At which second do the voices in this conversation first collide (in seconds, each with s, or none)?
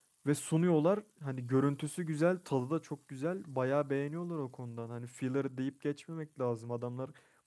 none